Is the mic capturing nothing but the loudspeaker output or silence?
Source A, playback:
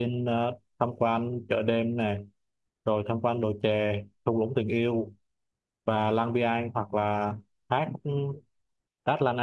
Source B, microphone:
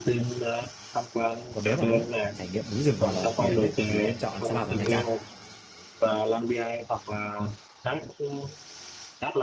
No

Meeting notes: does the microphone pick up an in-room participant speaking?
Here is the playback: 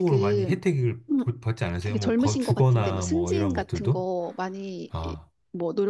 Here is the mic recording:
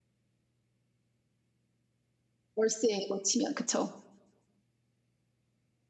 Yes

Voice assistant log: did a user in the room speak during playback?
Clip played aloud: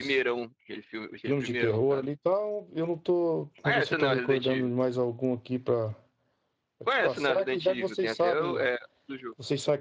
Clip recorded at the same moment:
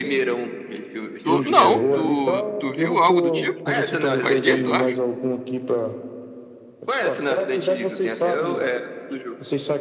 Yes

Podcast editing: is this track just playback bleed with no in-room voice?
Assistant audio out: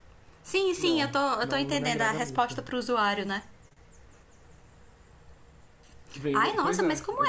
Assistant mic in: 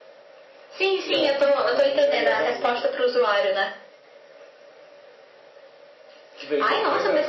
Yes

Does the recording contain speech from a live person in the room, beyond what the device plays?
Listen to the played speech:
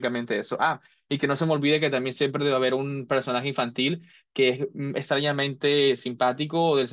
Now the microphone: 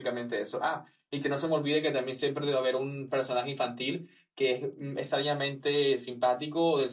No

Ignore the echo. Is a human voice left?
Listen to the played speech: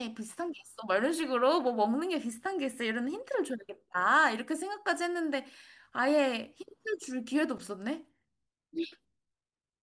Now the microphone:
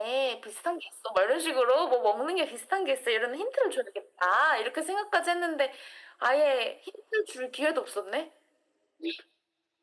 No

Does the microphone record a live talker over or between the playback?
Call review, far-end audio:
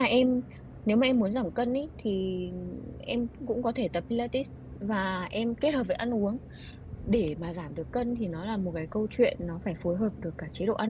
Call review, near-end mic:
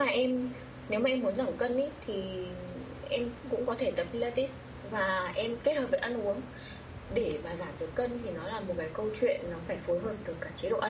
No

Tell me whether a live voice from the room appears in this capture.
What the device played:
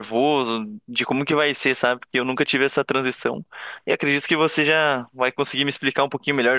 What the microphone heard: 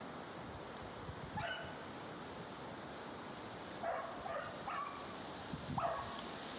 No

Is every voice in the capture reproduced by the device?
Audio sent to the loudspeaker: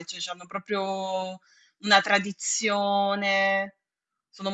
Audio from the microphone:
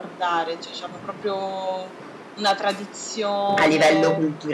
No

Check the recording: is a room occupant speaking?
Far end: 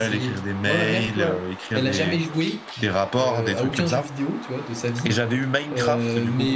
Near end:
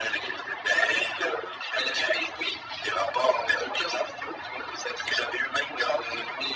No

